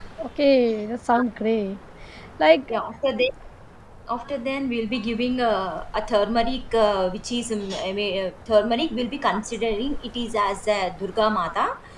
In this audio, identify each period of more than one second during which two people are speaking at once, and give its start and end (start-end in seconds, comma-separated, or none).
none